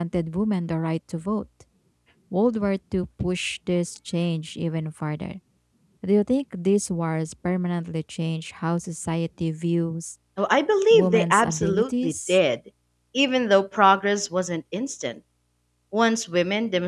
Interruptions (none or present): present